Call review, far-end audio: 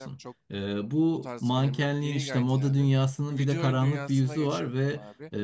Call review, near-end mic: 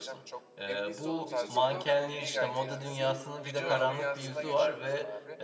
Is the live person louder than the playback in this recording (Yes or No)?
No